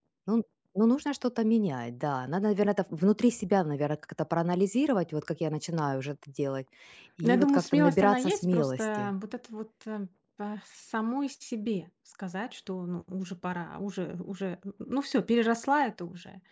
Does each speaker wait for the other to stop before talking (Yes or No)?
No